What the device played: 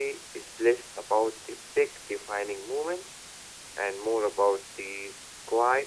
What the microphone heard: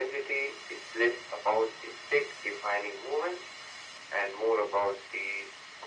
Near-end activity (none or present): none